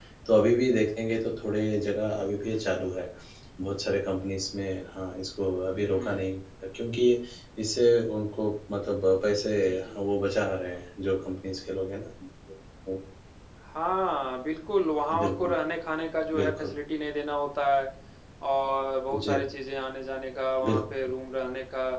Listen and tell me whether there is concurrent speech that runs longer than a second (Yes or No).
No